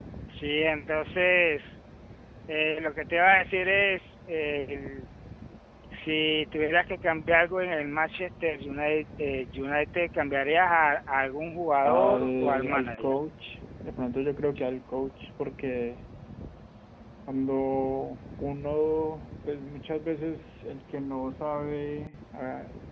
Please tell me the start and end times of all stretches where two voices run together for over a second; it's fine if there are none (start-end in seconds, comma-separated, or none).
11.8-13.2